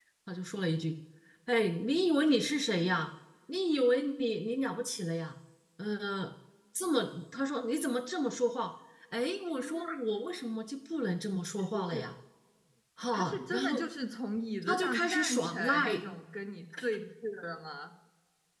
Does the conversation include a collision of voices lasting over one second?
Yes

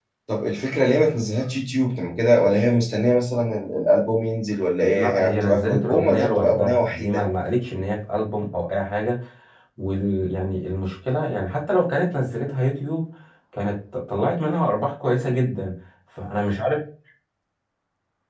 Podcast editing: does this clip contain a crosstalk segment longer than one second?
Yes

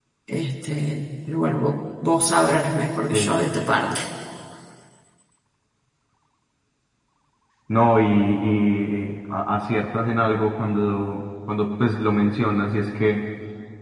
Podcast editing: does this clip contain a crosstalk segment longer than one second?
No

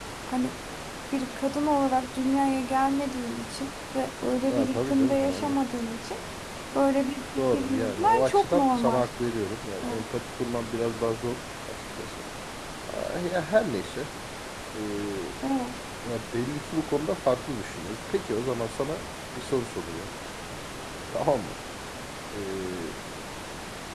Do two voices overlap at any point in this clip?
Yes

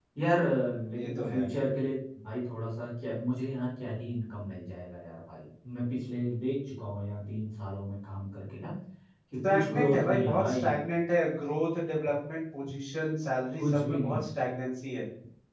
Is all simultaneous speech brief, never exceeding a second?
No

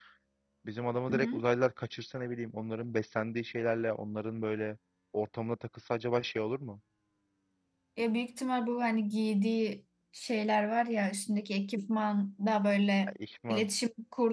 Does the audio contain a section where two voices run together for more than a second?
No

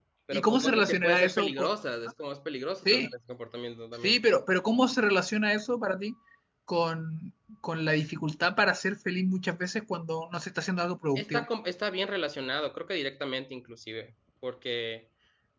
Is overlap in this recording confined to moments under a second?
No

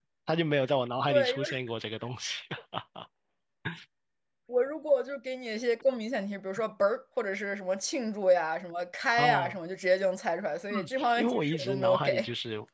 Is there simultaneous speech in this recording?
Yes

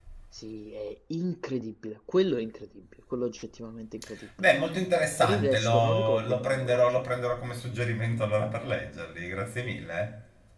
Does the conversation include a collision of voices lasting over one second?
Yes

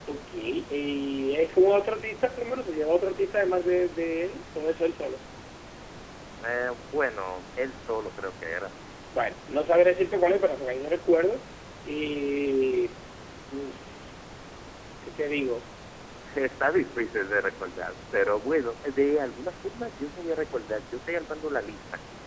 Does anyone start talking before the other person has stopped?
No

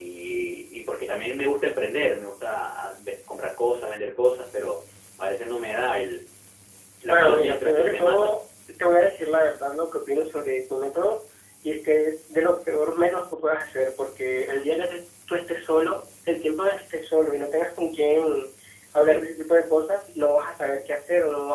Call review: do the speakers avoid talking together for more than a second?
No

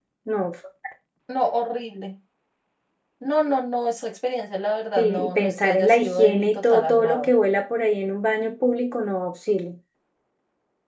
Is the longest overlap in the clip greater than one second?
Yes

